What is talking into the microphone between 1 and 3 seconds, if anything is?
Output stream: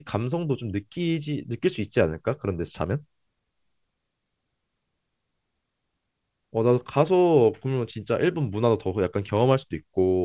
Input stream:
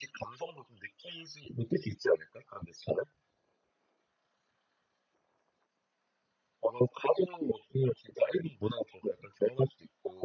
echo only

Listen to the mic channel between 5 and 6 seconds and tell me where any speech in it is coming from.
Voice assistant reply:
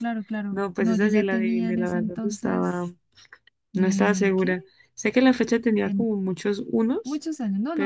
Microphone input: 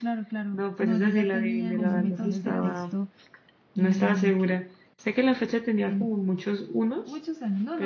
echo only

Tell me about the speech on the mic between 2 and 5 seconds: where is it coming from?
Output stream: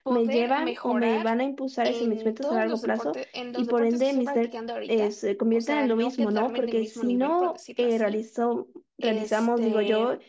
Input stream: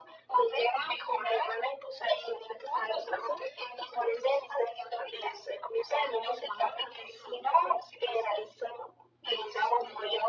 echo only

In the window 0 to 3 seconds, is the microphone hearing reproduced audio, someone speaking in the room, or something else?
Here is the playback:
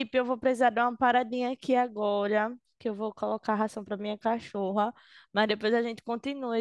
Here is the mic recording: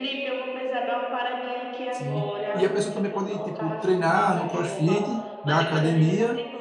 both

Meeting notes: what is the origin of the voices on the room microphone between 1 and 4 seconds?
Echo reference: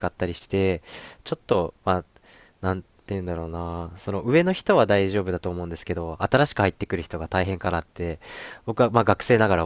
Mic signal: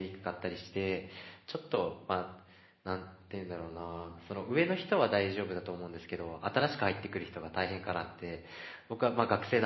echo only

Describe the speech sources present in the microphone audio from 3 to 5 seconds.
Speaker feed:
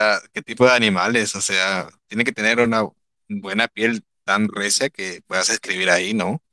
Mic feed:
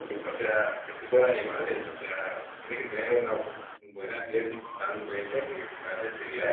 echo only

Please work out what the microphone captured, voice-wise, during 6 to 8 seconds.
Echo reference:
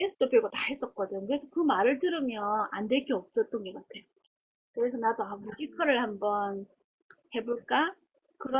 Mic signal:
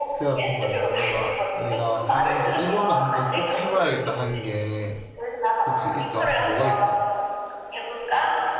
both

